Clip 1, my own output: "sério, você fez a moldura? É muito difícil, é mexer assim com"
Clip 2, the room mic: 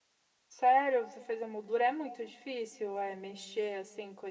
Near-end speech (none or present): none